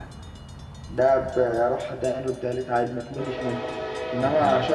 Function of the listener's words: listening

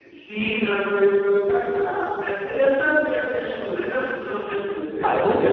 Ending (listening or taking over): taking over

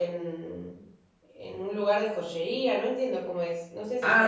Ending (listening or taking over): taking over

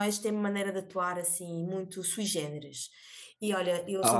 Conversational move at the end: listening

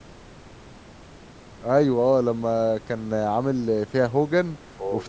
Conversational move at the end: listening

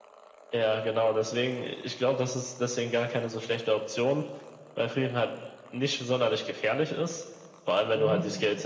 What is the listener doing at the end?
listening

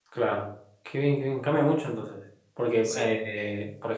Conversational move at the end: listening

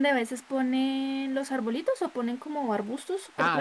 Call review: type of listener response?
taking over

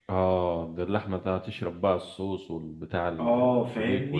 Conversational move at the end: taking over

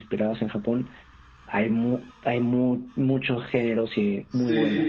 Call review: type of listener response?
taking over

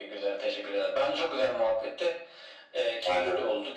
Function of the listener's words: listening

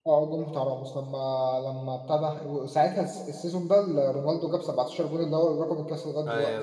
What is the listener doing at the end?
taking over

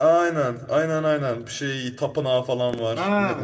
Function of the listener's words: taking over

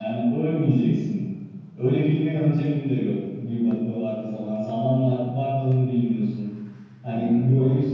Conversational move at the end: listening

